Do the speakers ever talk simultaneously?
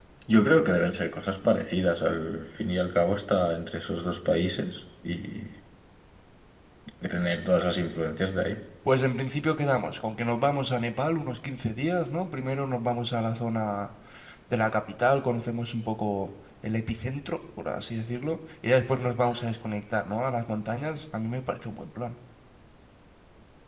No

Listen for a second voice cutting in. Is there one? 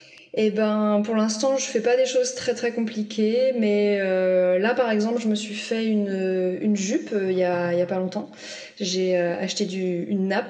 No

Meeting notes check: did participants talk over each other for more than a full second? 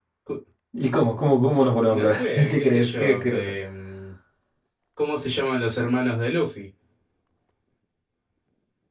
Yes, from 1.9 s

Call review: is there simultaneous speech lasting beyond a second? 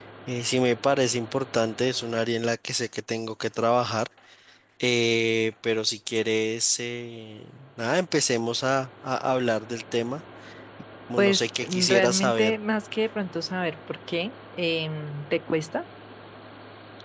Yes, from 11.2 s

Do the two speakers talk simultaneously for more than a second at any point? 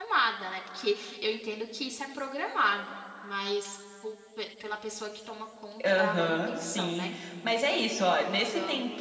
Yes, from 5.8 s

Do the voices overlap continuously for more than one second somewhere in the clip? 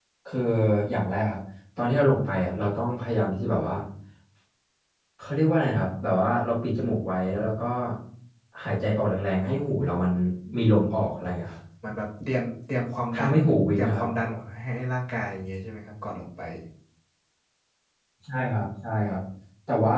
No

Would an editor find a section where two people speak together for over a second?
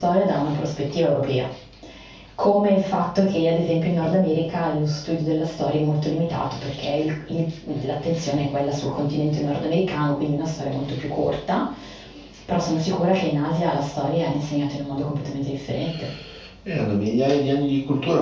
No

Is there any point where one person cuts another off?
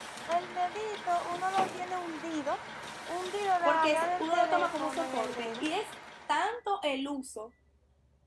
Yes, from 3.6 s

